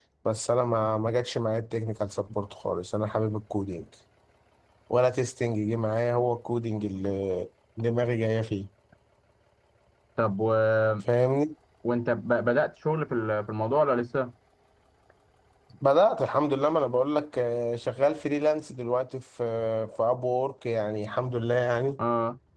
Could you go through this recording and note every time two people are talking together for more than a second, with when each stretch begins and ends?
none

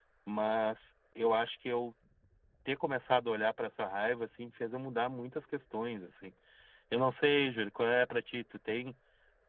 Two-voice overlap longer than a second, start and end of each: none

